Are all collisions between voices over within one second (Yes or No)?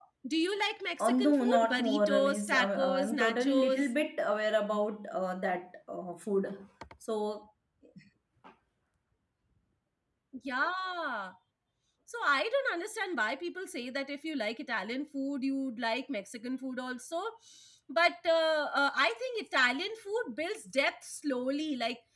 No